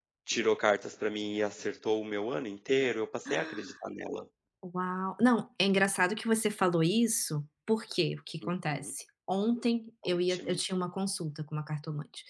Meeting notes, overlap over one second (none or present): none